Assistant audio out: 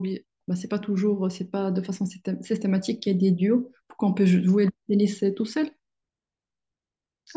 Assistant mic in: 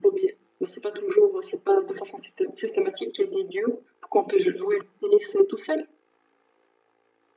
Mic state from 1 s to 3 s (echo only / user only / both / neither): echo only